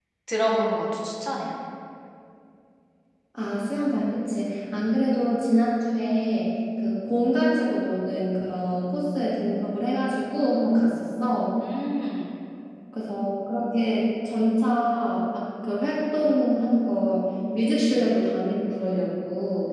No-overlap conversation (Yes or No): Yes